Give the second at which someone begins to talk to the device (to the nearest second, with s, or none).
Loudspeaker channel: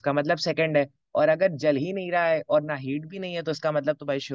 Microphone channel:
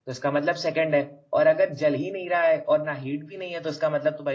none